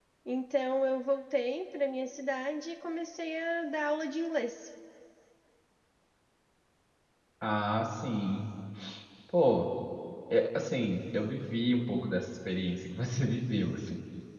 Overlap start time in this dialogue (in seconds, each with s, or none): none